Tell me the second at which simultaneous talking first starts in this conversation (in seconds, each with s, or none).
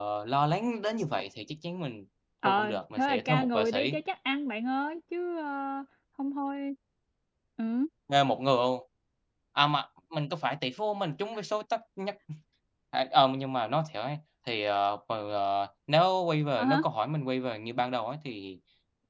2.5 s